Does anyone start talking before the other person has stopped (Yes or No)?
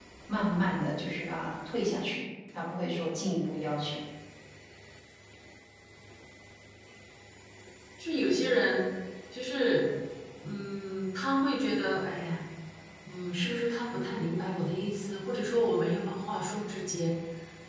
No